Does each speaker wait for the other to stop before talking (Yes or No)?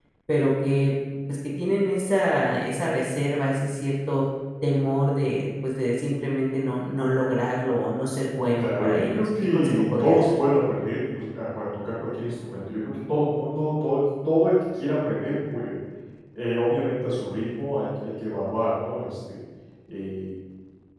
No